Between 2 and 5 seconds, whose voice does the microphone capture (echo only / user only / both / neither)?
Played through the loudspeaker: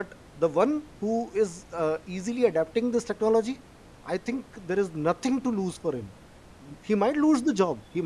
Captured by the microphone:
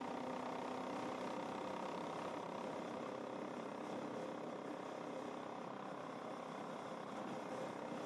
neither